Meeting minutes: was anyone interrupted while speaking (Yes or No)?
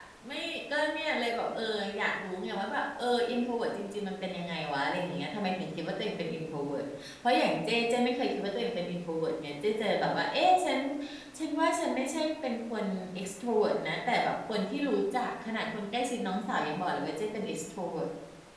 No